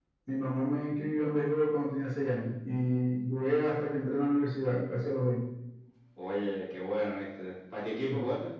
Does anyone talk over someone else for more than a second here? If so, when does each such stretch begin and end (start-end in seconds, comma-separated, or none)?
none